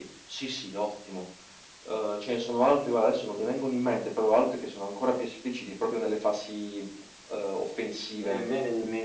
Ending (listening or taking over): taking over